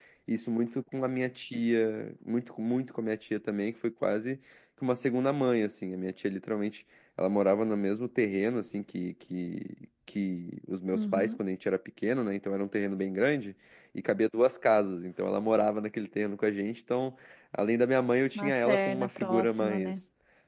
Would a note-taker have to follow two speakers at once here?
Yes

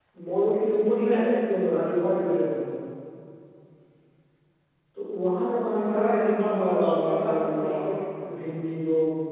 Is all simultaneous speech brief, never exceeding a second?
No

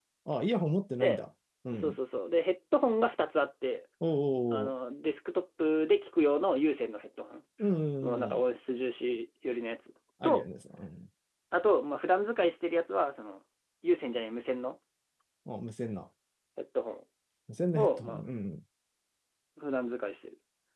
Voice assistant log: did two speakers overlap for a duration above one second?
No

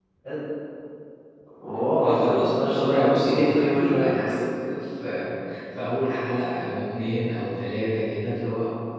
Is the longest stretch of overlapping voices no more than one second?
No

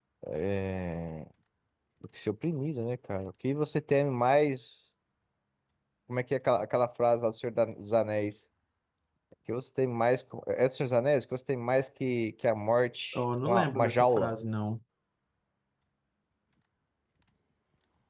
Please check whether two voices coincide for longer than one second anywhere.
Yes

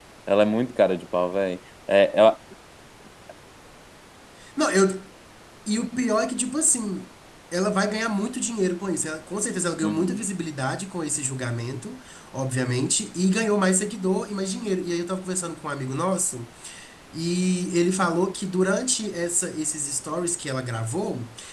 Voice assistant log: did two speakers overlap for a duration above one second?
No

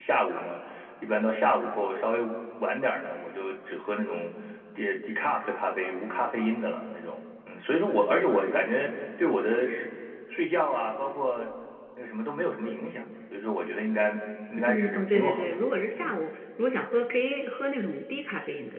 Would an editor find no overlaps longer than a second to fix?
No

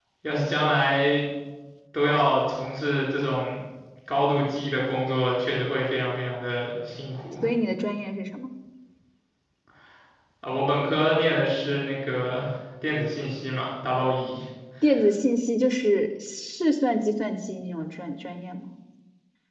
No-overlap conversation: Yes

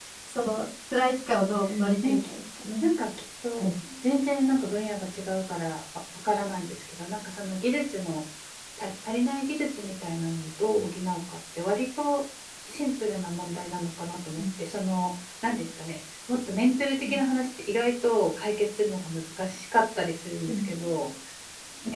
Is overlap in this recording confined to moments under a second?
Yes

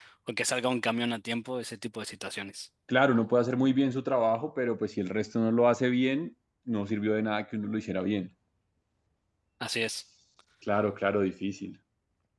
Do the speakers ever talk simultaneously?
No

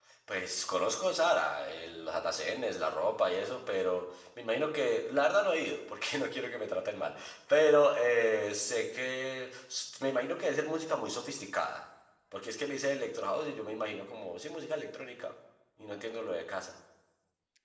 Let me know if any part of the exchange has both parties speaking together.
No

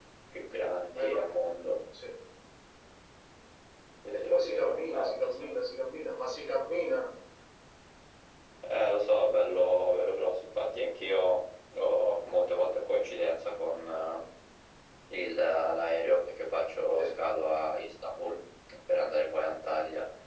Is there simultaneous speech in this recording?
Yes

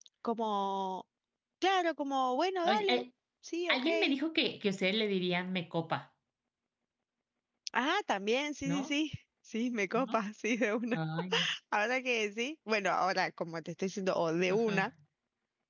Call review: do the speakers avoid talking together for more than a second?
Yes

